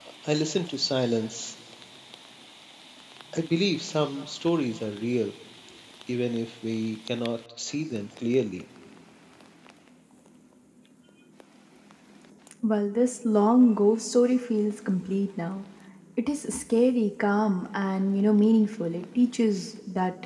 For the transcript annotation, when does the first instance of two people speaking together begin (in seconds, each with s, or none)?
none